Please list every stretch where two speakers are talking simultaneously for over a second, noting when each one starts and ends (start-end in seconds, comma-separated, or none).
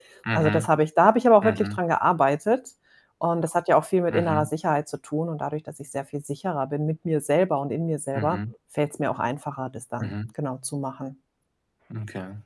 none